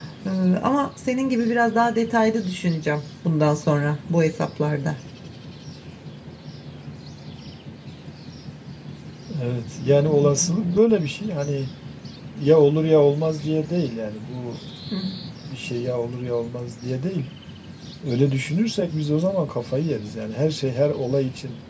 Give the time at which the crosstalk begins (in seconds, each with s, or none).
none